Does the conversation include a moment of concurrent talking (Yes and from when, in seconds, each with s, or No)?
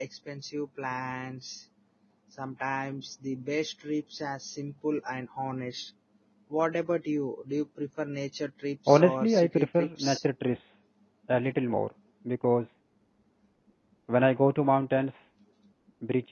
Yes, from 8.9 s